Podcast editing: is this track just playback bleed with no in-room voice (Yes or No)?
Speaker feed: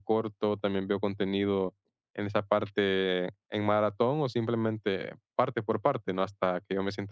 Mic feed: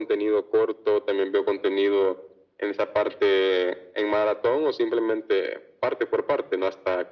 Yes